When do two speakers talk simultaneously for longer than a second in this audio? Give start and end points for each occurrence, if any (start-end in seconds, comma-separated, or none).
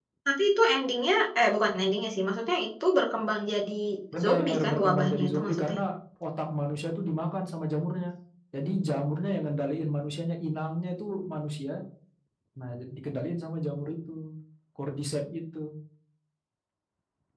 4.2-5.8